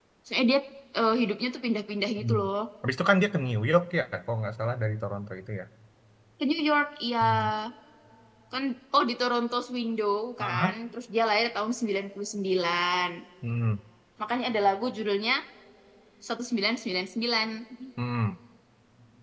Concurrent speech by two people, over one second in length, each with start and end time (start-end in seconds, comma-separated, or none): none